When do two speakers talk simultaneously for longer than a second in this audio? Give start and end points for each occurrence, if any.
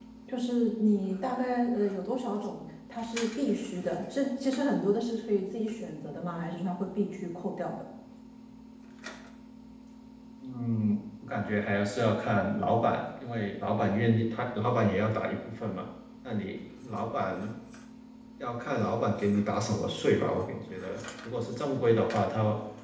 none

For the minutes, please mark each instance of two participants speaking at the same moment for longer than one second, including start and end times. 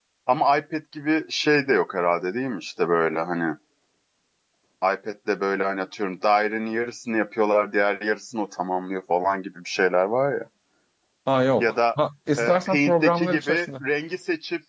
12.4-13.7

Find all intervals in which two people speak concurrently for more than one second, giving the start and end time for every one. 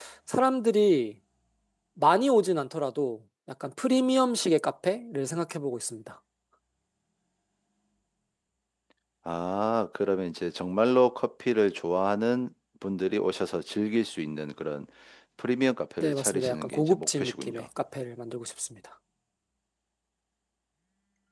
16.0-17.7

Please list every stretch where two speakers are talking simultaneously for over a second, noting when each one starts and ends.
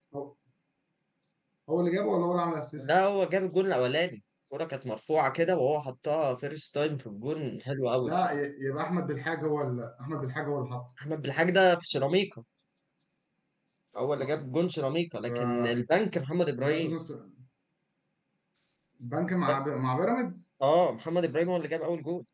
none

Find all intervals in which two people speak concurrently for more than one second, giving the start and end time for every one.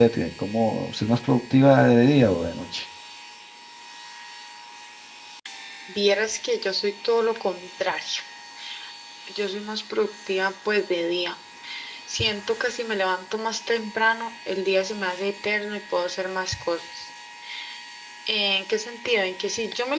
none

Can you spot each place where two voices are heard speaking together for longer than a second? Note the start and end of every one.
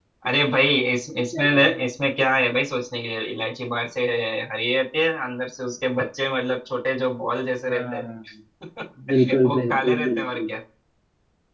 9.3-10.5

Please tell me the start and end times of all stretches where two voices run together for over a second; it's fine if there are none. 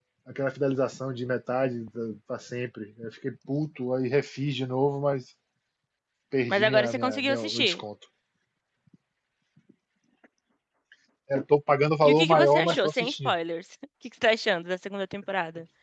6.5-7.8, 12.1-13.3

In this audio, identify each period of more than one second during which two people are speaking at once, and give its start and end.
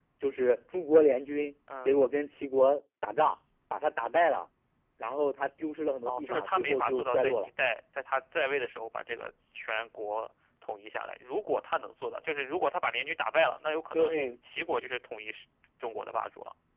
6.0-7.5

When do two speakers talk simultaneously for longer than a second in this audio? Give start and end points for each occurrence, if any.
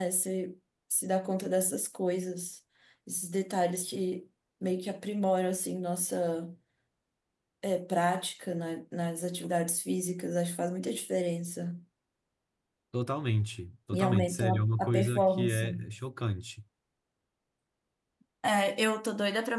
13.9-15.6

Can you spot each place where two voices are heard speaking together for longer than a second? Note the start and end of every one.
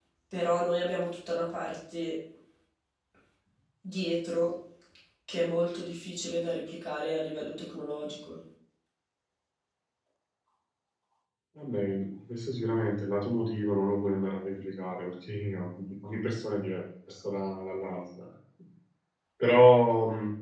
none

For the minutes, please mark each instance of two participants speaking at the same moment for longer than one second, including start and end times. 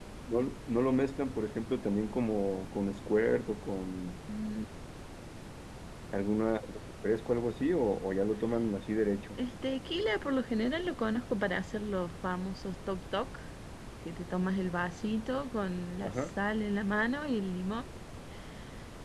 none

